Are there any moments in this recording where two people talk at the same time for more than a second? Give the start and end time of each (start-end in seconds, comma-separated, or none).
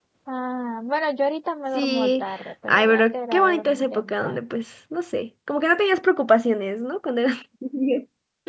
2.7-4.4